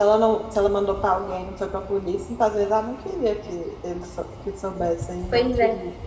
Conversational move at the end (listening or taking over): taking over